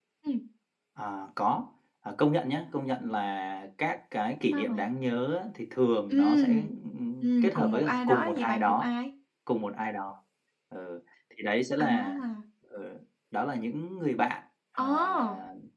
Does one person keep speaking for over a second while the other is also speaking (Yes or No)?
Yes